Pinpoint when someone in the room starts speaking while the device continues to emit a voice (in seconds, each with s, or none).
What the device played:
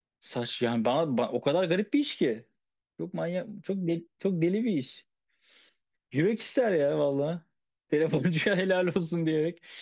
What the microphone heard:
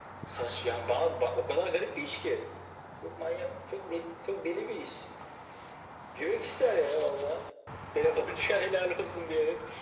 none